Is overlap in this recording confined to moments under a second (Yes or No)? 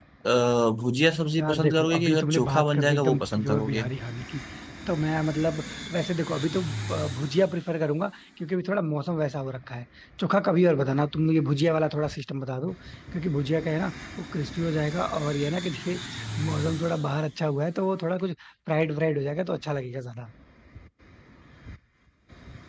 No